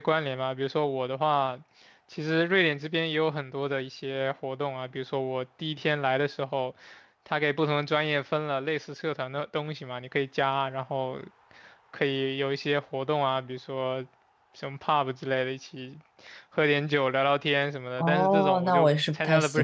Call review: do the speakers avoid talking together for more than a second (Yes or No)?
No